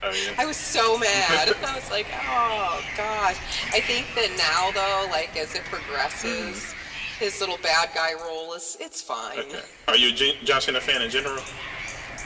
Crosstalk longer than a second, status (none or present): none